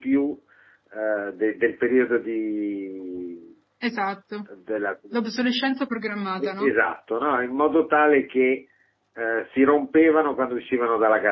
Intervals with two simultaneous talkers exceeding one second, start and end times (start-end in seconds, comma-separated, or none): none